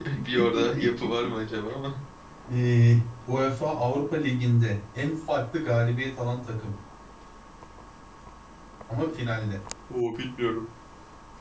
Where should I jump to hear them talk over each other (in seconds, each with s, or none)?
none